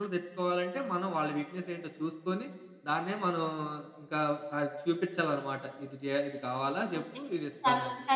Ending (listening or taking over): taking over